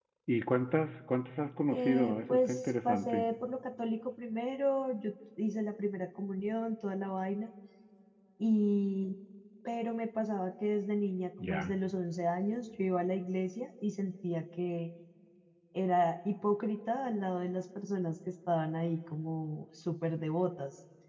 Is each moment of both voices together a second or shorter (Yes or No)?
No